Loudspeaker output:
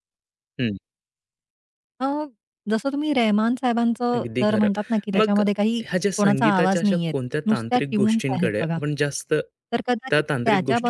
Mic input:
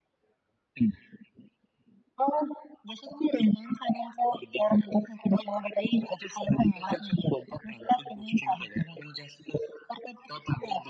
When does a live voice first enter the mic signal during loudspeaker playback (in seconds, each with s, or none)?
none